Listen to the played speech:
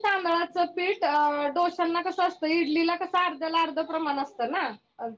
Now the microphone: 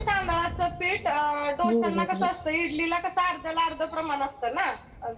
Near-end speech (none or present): present